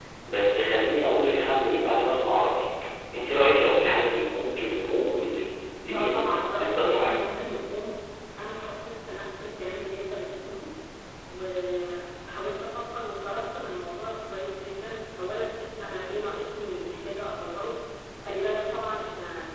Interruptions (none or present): present